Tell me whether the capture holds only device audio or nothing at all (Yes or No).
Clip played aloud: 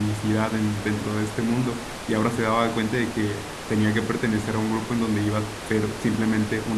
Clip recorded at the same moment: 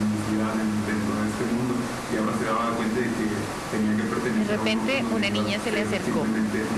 No